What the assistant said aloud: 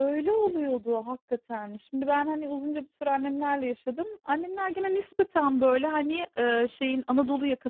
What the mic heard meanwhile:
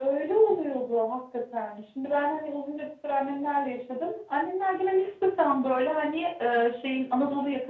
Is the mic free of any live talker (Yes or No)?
Yes